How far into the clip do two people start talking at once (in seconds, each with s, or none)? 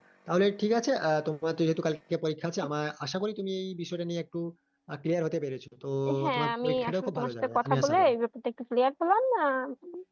6.3 s